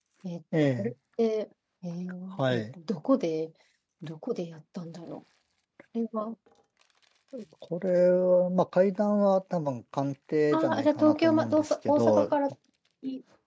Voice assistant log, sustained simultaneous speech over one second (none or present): present